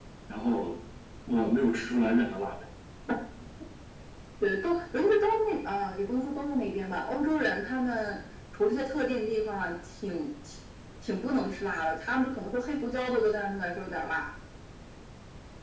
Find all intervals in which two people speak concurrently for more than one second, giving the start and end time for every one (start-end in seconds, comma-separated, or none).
none